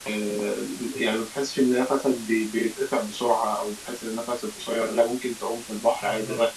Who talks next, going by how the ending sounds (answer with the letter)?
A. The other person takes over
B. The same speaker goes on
B